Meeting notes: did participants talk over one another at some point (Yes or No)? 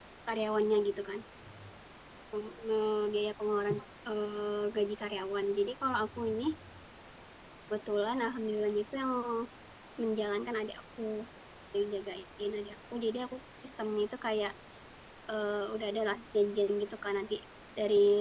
No